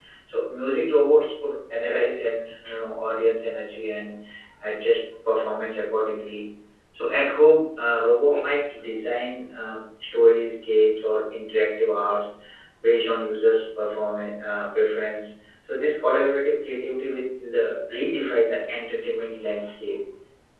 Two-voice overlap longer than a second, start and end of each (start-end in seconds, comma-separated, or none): none